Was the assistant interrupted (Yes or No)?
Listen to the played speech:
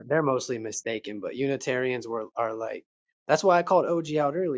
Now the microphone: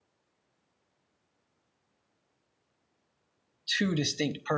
Yes